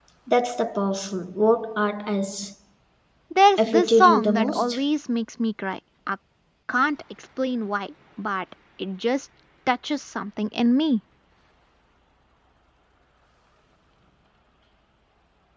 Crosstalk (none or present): present